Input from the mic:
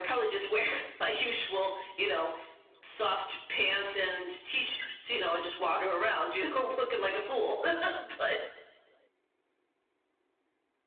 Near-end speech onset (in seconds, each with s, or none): none